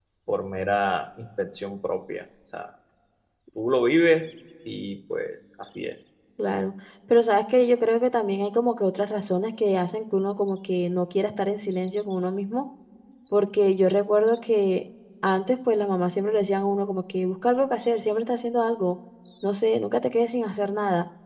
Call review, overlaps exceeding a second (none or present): none